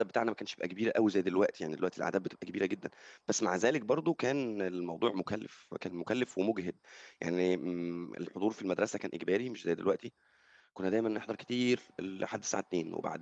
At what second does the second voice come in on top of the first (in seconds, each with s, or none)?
none